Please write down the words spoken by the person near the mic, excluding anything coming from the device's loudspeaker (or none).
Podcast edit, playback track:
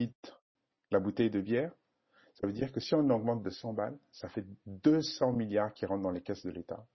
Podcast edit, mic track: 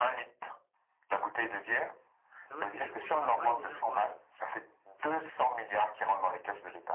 Pendant que tu vas au travail, les gens boivent.